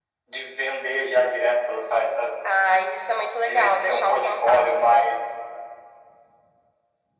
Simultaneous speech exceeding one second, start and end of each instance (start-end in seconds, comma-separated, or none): 3.5-5.1